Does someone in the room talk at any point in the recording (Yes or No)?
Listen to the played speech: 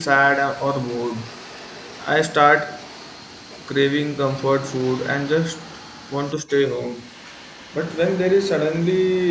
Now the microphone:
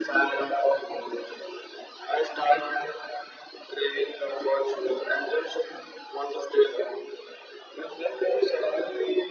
No